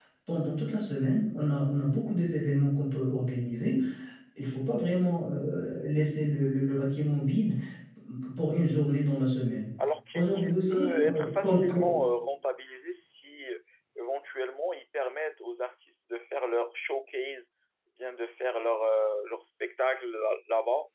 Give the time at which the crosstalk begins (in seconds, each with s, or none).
10.1 s